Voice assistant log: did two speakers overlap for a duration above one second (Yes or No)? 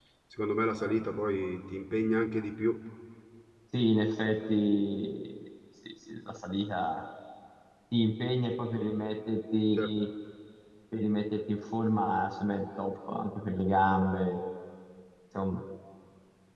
No